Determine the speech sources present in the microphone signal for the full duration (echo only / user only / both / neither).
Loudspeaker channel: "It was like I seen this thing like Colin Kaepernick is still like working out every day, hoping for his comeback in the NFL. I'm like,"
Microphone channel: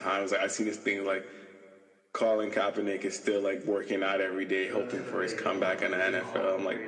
both